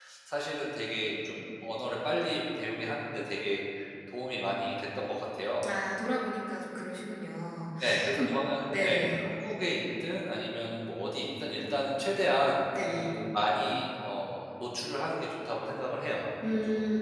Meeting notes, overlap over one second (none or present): none